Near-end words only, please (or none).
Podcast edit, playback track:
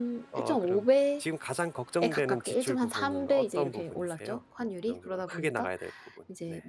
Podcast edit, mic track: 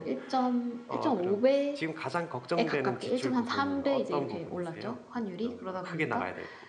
none